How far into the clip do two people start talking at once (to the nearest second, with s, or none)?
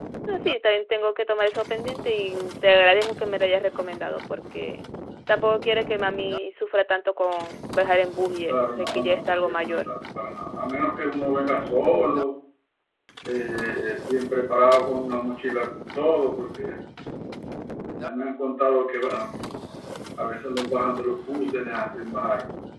8 s